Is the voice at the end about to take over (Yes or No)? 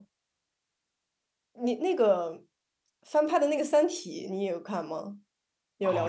Yes